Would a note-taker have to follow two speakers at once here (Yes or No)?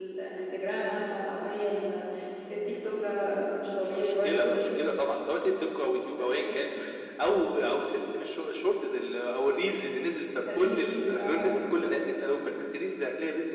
Yes